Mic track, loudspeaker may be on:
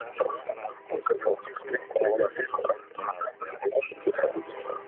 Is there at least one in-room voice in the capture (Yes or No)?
No